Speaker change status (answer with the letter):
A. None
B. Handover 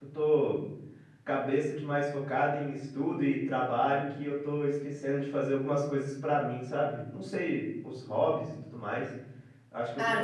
B